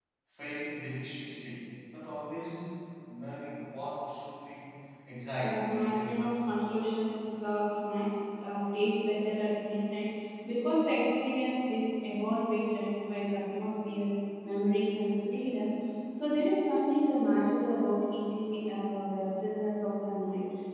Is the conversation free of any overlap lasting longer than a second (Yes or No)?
No